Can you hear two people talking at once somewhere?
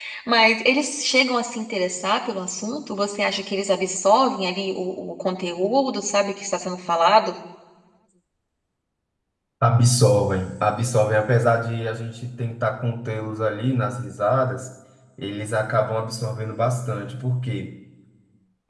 No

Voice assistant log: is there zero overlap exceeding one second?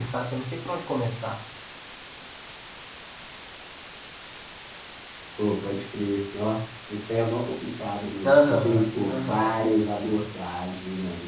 No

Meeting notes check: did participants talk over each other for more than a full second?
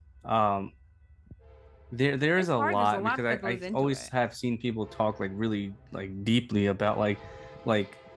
Yes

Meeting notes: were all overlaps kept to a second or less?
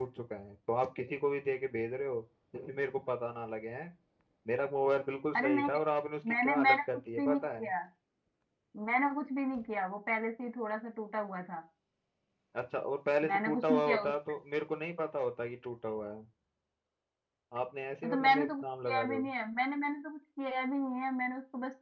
No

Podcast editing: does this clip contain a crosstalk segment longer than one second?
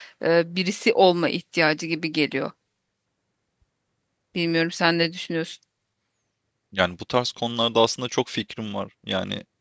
No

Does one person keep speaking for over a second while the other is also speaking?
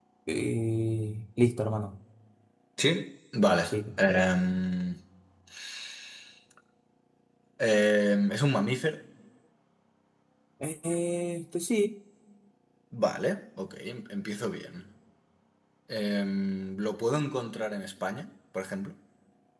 No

